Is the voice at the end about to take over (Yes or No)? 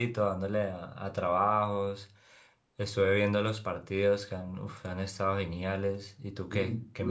Yes